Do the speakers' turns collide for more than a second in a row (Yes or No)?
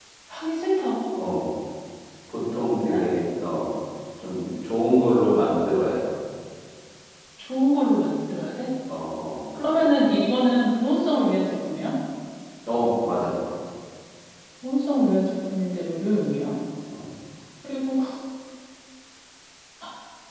No